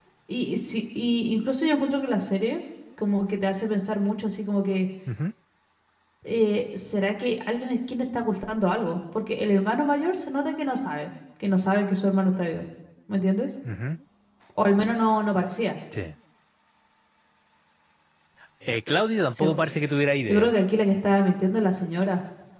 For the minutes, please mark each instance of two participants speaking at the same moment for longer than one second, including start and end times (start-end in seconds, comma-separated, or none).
none